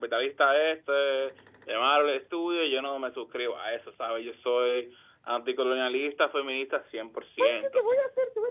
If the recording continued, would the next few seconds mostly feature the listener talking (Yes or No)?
Yes